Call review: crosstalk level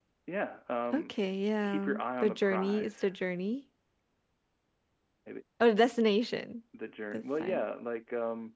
present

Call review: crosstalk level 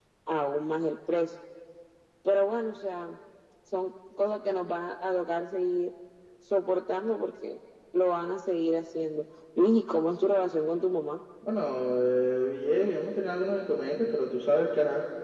none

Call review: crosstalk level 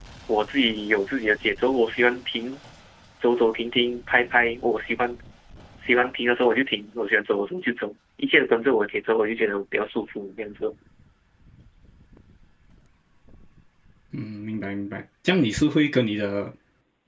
none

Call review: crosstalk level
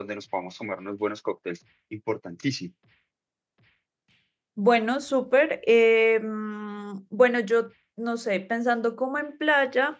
none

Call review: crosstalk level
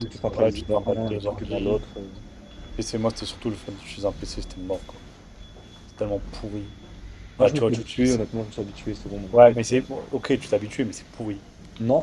present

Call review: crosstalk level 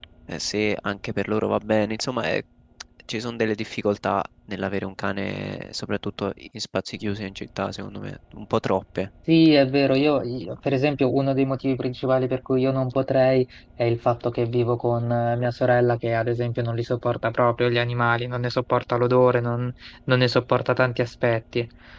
none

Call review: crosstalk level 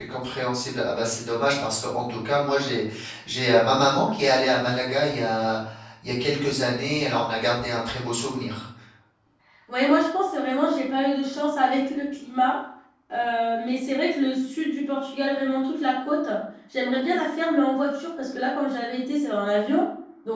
none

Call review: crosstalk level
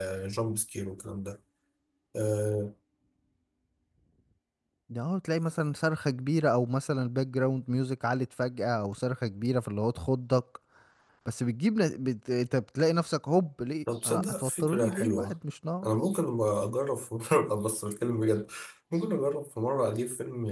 present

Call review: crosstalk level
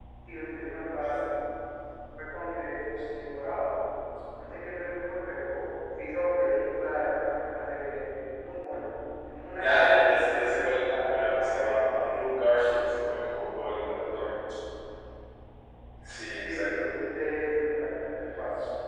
present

